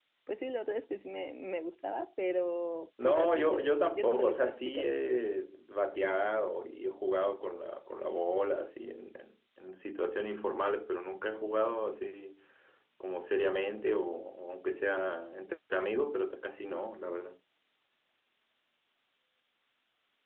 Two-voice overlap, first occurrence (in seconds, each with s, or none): 3.0 s